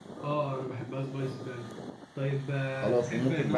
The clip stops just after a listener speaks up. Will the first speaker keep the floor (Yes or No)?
No